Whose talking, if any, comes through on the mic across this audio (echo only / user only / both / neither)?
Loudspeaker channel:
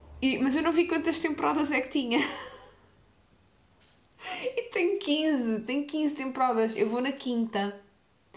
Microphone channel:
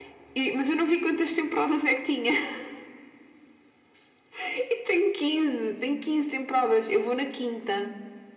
echo only